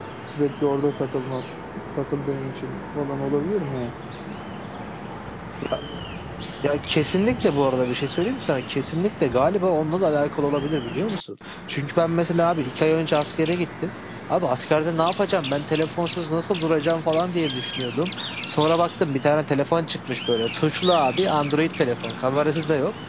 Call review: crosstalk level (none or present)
none